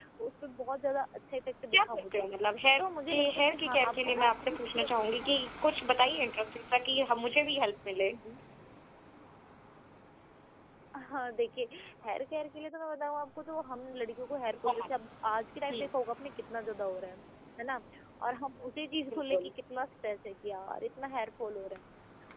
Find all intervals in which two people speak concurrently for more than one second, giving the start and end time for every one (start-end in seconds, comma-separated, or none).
2.8-5.4